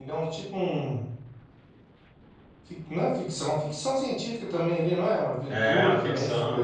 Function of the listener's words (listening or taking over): taking over